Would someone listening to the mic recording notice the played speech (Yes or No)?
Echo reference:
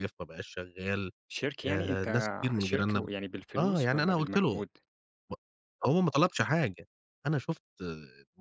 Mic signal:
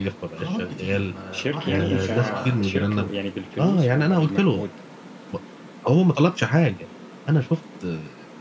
Yes